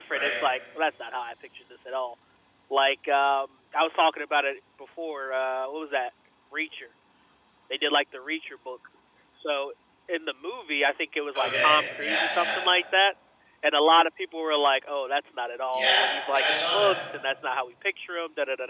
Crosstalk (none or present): present